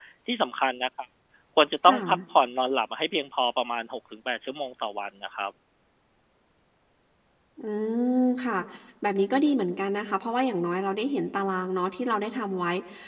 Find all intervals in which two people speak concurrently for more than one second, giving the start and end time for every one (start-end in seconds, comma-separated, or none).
none